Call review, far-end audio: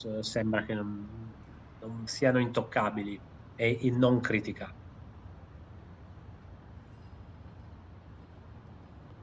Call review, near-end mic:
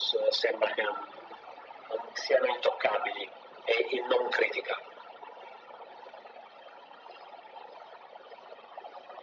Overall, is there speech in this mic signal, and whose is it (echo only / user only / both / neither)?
echo only